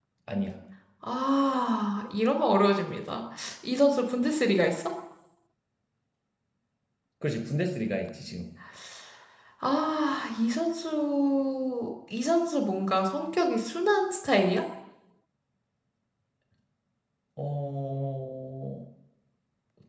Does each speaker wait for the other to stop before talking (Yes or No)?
Yes